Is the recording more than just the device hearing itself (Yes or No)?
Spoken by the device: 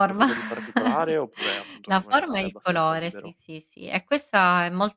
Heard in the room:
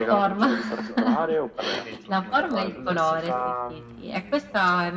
Yes